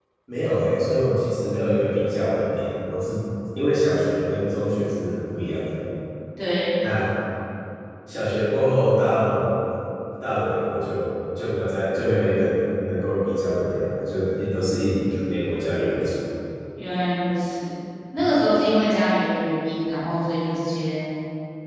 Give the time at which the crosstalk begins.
none

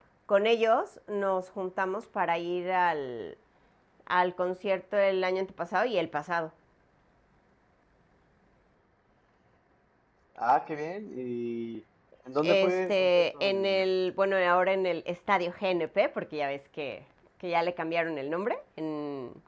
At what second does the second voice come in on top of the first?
12.4 s

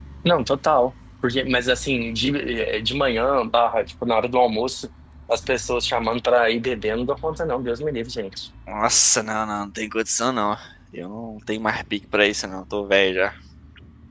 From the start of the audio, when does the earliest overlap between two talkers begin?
none

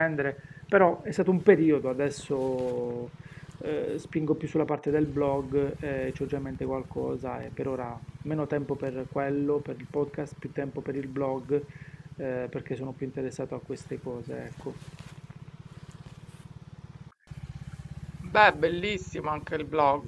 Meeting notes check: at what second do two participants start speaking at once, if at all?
none

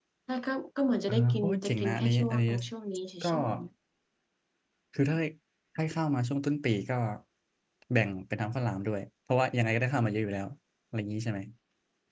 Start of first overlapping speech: 1.1 s

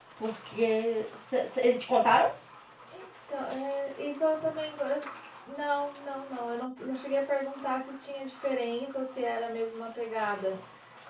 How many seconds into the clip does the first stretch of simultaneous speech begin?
none

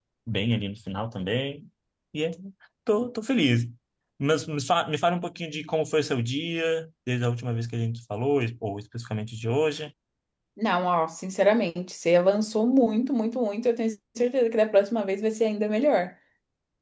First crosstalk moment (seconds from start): none

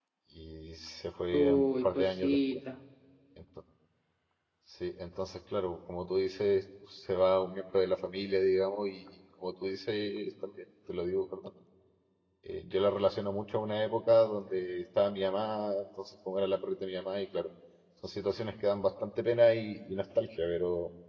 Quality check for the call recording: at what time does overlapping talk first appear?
1.3 s

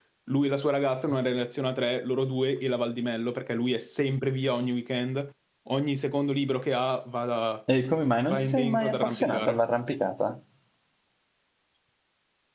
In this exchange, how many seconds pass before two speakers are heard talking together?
8.3 s

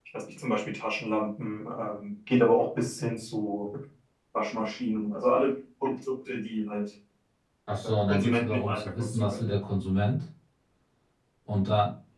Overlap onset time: 7.8 s

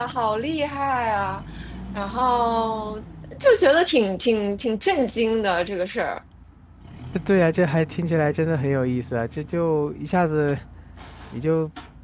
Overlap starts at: none

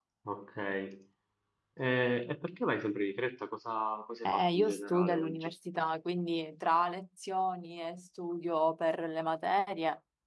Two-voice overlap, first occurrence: 4.2 s

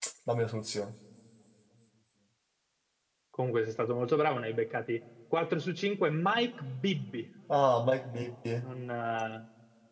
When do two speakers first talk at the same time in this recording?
none

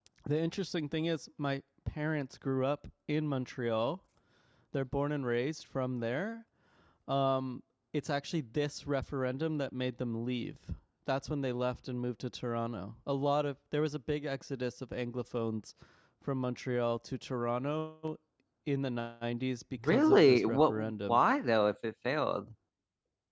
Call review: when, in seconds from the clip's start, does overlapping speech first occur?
19.8 s

